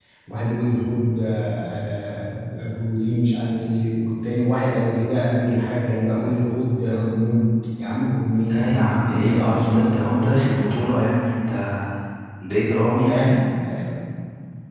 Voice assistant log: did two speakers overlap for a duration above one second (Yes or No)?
Yes